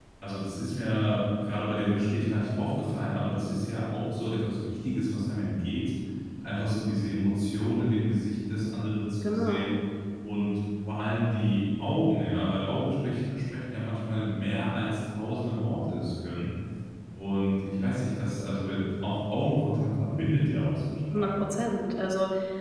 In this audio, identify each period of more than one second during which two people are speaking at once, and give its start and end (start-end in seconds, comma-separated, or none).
none